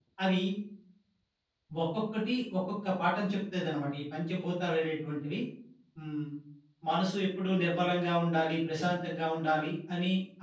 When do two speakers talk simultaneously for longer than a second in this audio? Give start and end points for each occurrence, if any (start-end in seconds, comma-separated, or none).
none